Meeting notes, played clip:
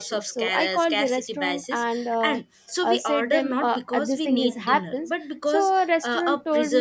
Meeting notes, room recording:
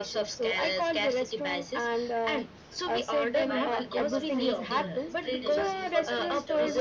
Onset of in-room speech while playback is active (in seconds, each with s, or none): 3.4 s